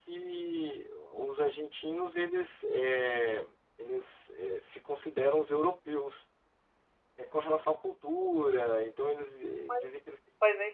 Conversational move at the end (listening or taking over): taking over